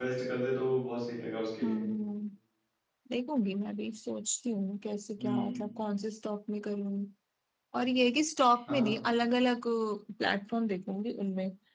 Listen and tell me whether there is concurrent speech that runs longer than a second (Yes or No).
No